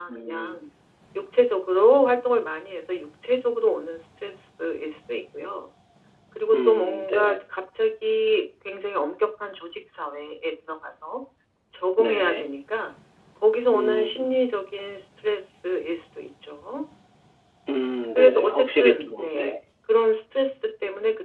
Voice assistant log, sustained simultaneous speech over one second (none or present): present